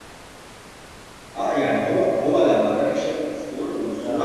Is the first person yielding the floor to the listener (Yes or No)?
No